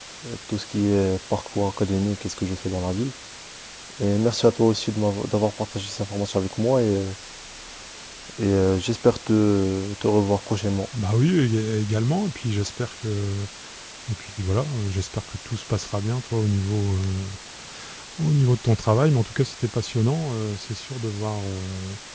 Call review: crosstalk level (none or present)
none